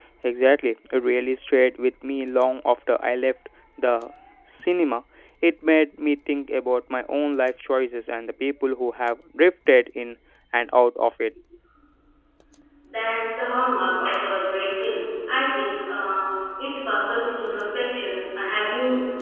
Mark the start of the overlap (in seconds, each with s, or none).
none